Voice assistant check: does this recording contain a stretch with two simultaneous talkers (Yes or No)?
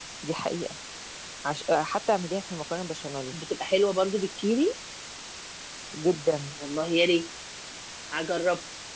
No